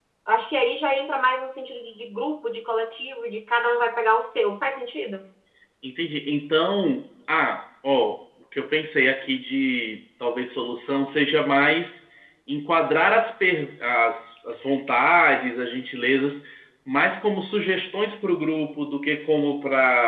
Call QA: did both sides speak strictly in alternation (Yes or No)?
Yes